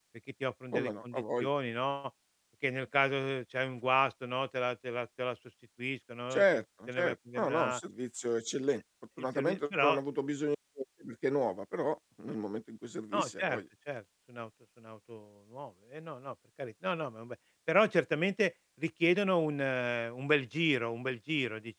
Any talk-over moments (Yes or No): Yes